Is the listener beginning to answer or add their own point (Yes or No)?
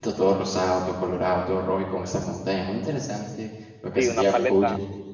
Yes